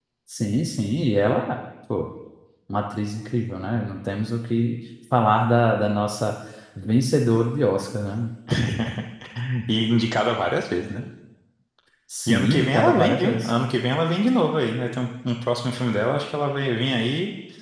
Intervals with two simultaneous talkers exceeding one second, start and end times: 12.3-13.5

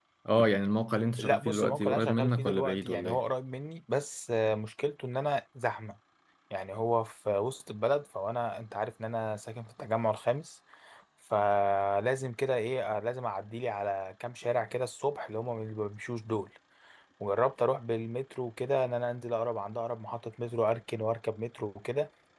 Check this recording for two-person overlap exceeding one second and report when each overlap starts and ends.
1.2-3.2

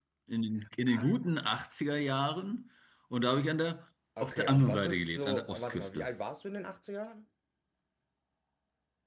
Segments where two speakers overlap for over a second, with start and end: 4.2-6.1

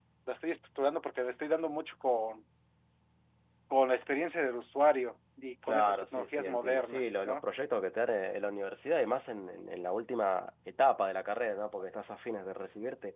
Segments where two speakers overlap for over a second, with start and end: 5.7-7.4

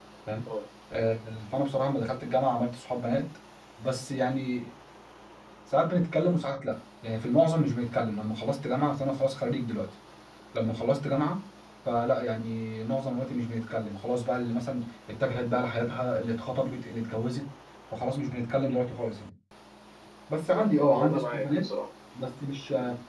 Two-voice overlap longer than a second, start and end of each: 20.4-21.6

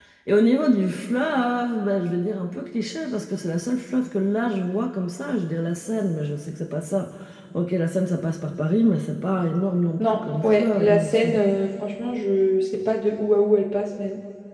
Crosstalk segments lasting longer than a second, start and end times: 10.0-11.4

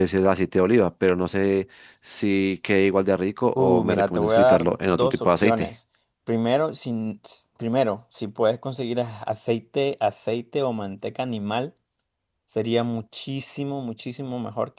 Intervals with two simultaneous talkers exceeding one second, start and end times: 3.5-5.7

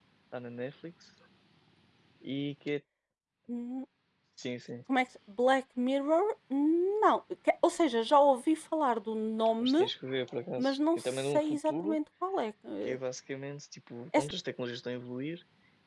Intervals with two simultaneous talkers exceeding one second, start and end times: 10.6-12.0

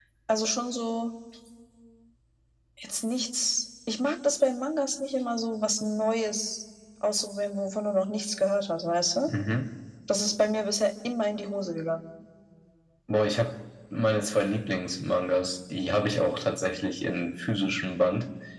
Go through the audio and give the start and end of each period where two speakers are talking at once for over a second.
none

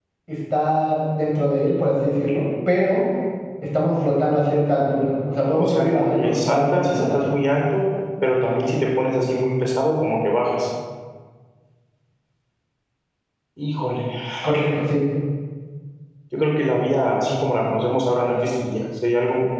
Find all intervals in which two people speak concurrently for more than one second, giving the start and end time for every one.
5.6-7.2

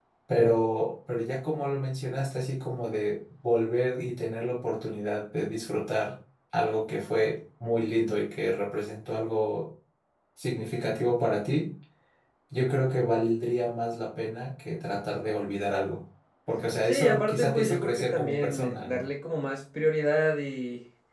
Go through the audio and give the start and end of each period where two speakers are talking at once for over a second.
16.8-19.0

